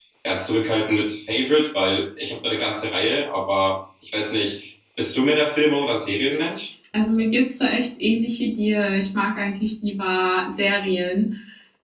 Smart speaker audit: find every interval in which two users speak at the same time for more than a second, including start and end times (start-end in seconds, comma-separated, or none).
none